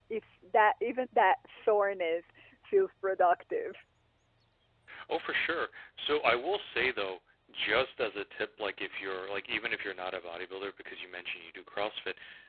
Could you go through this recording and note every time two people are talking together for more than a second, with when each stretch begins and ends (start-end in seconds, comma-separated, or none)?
none